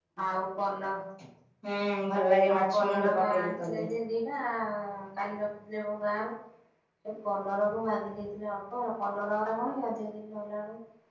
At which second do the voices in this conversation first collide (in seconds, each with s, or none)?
2.5 s